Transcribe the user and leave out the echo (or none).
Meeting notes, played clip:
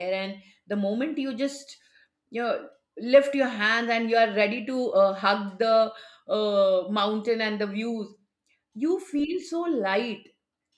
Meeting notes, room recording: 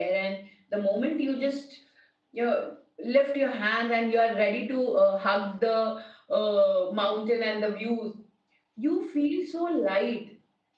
none